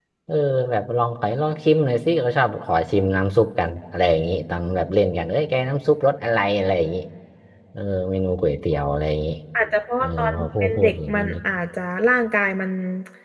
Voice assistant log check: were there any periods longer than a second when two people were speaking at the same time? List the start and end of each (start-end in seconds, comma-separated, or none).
10.0-11.3